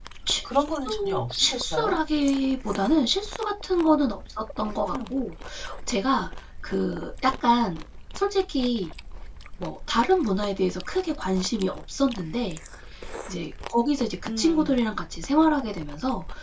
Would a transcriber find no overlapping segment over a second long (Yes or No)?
No